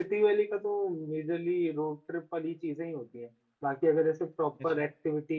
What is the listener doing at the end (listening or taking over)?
listening